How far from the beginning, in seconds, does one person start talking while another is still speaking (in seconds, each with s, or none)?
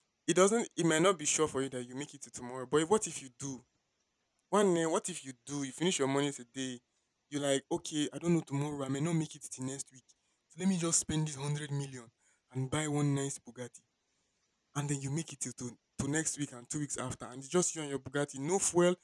none